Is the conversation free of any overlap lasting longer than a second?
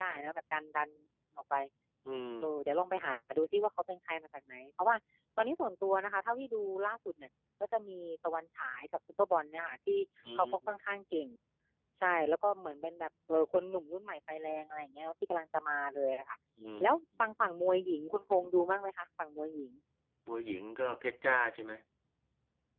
Yes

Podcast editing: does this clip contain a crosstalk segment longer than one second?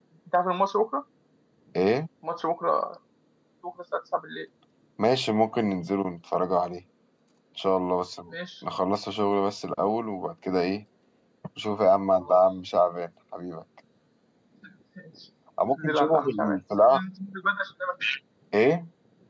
Yes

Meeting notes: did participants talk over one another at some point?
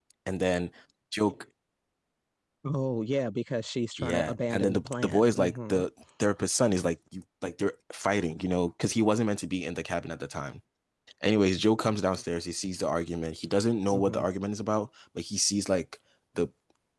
Yes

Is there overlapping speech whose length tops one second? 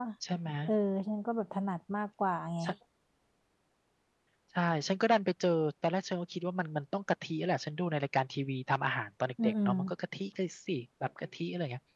No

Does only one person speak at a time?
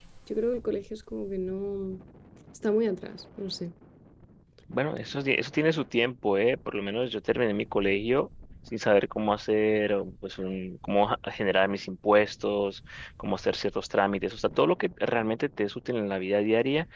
Yes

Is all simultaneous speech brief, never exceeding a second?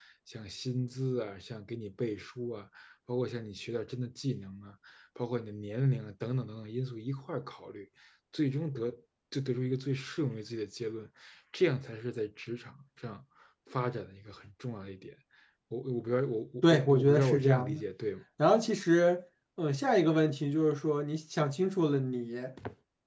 No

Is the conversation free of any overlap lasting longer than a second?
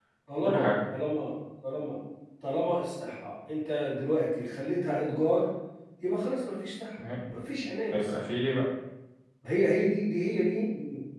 Yes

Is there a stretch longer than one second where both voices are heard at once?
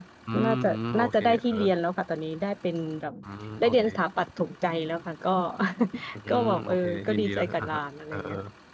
Yes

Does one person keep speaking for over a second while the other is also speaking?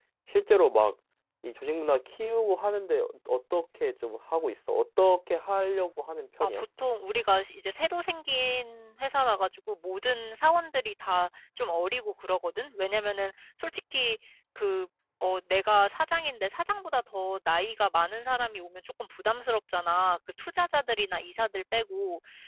No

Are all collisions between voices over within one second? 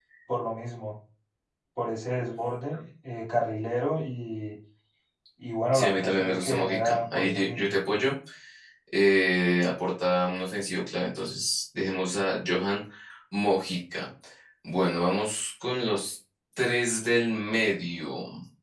No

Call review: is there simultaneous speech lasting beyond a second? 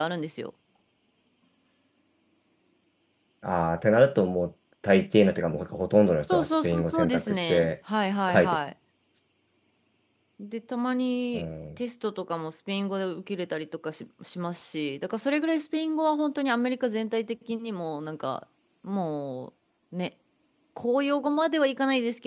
Yes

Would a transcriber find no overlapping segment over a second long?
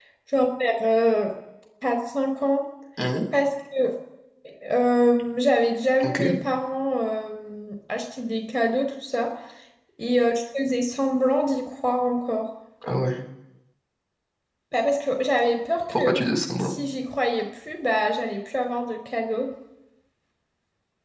Yes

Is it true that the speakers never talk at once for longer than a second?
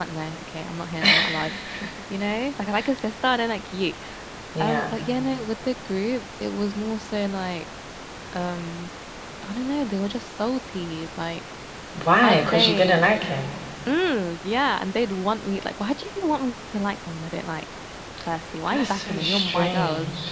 No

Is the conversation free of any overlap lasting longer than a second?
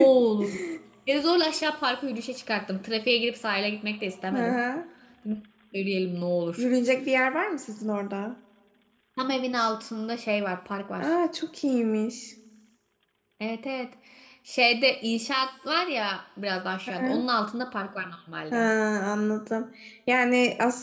Yes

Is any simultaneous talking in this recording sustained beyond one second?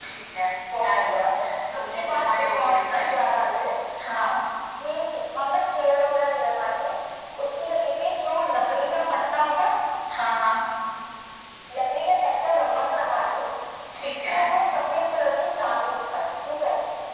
Yes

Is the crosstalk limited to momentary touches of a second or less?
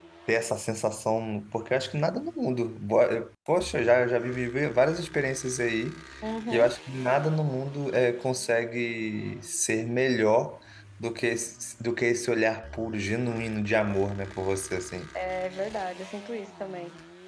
Yes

